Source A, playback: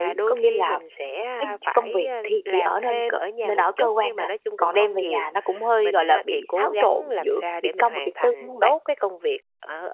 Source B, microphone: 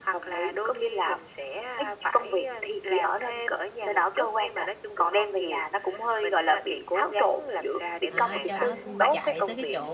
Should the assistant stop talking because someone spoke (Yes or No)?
Yes